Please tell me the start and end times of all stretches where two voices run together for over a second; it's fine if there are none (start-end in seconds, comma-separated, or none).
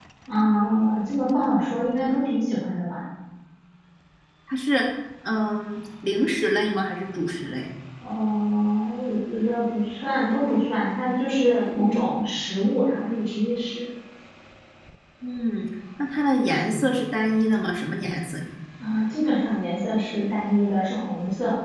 none